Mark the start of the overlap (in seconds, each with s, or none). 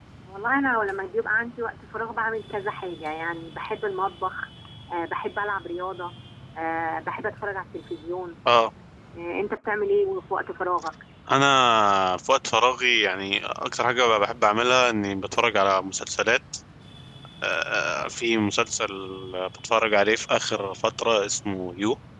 none